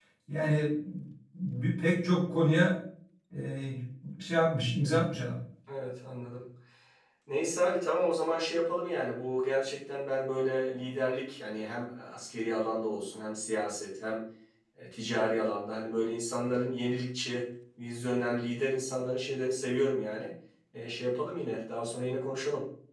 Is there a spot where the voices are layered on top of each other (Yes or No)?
No